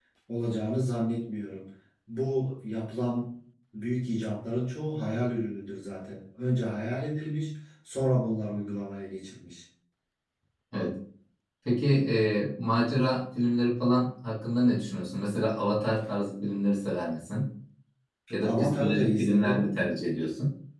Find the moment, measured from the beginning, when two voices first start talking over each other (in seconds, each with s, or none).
18.4 s